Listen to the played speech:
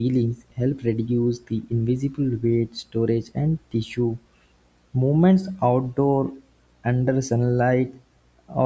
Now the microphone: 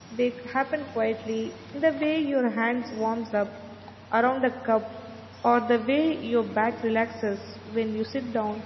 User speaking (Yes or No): Yes